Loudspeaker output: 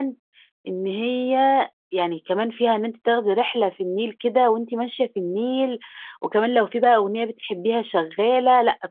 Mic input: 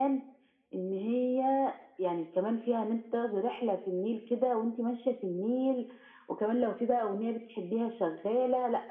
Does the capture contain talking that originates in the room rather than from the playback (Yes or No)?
No